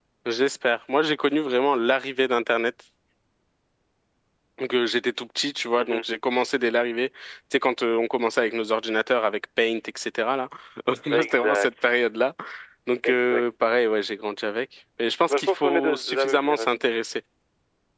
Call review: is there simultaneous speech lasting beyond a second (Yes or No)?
Yes